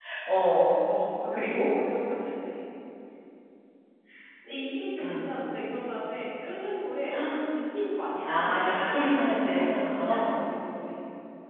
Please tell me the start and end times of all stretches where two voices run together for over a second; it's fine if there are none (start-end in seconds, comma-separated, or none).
8.2-10.4